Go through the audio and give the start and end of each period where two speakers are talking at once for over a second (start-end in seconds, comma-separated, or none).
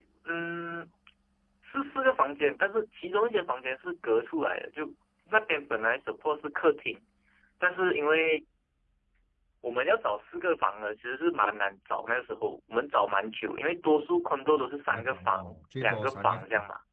14.9-16.4